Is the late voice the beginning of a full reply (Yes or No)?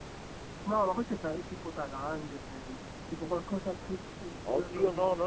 Yes